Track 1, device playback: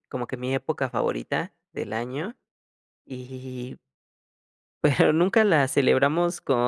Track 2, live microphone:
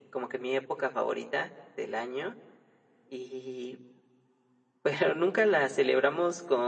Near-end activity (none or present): none